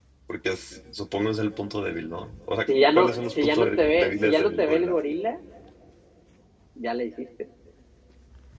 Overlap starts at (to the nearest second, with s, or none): 3 s